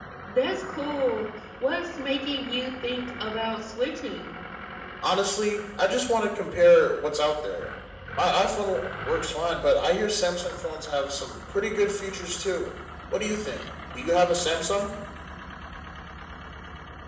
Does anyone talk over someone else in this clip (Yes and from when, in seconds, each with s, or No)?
No